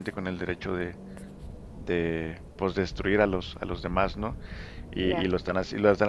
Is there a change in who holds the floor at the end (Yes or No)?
No